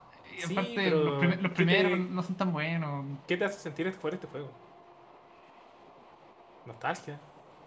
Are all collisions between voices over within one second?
No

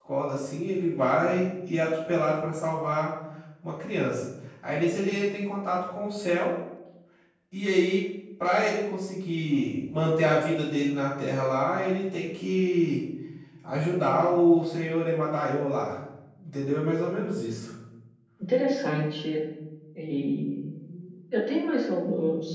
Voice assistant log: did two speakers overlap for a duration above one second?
No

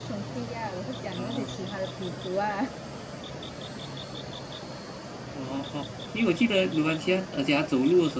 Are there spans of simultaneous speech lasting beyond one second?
No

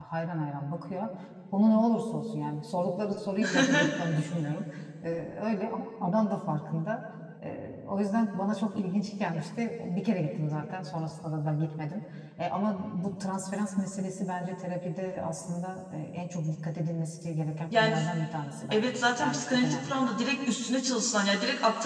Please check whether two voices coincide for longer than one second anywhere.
Yes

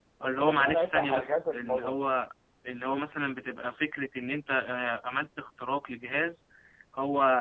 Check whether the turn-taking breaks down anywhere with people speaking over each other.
Yes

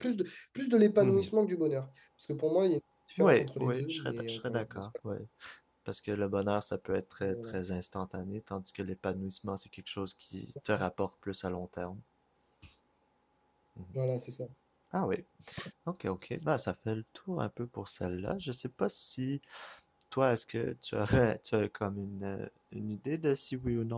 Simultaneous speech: Yes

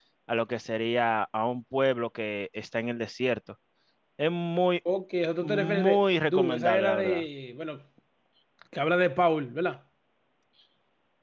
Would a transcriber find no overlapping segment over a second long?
No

